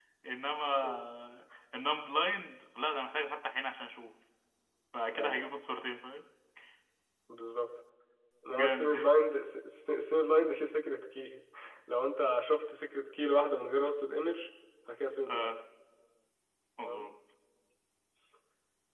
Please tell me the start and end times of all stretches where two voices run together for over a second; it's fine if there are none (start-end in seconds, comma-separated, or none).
none